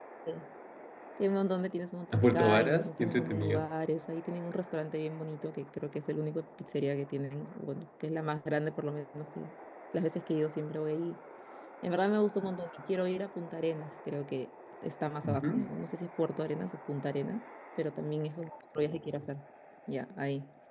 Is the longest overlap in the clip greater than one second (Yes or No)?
Yes